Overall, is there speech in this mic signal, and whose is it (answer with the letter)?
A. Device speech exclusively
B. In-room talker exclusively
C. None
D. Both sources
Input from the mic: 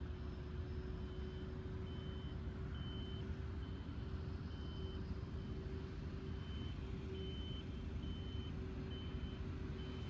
C